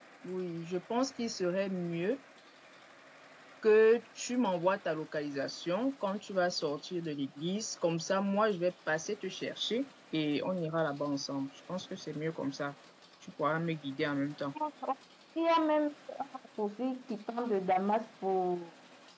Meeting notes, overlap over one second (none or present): none